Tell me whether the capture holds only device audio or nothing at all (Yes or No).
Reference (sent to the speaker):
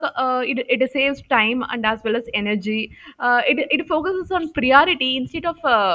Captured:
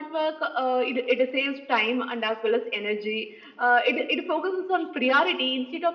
Yes